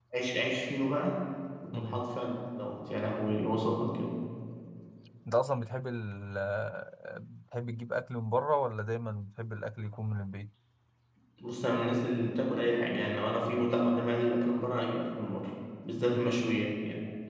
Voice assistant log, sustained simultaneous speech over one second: none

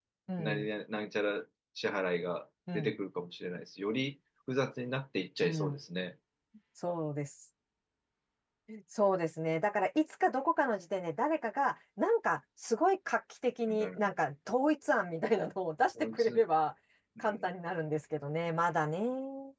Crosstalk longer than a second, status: none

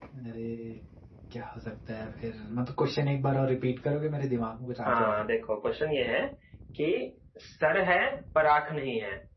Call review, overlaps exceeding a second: none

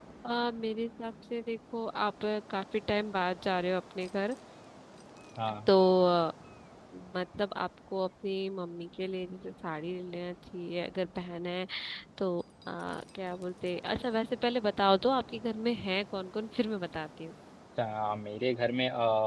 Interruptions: none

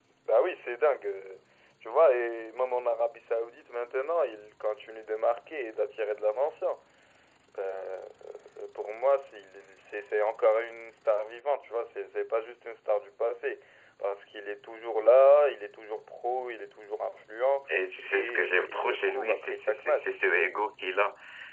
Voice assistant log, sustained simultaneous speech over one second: present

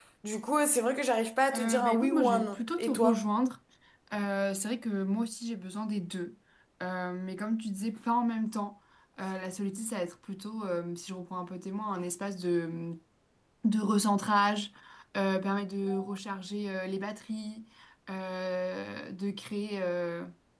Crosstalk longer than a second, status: present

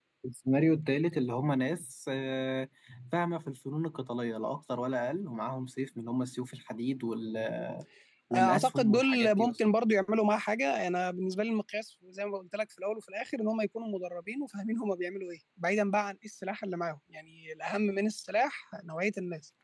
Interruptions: present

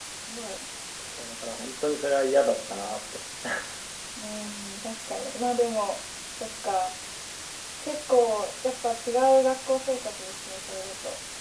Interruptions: none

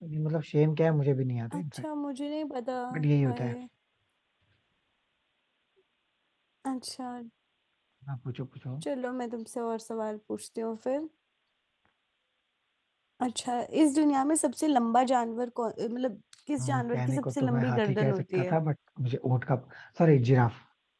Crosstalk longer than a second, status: present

